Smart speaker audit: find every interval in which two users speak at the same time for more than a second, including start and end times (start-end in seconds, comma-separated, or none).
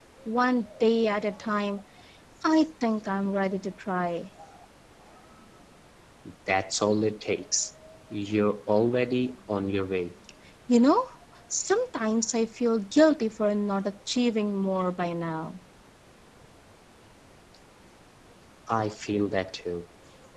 none